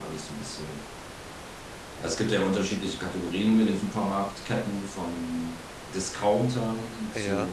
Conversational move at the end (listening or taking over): listening